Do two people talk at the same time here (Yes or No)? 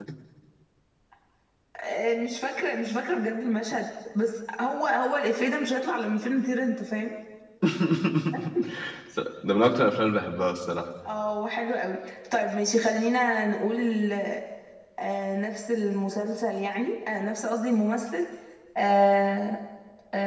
No